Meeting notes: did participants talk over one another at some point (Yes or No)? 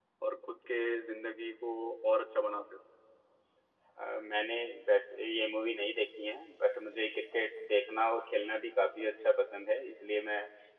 No